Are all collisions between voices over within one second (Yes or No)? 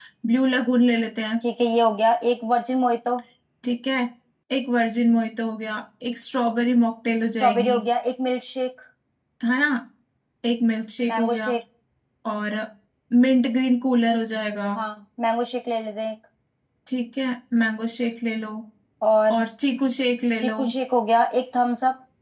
Yes